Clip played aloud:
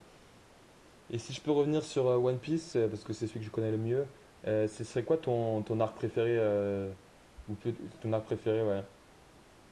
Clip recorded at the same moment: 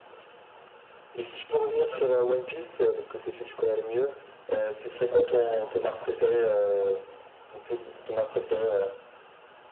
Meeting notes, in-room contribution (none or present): present